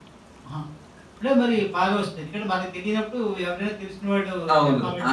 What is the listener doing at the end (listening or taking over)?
taking over